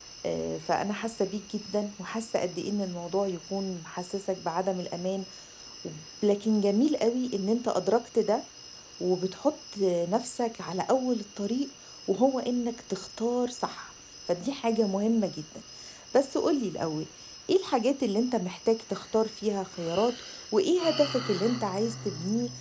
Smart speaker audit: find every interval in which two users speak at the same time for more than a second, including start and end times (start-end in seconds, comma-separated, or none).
none